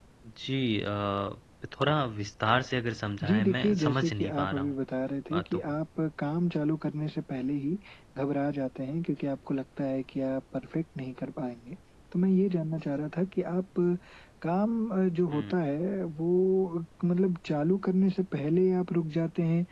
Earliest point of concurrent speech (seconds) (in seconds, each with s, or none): 3.2 s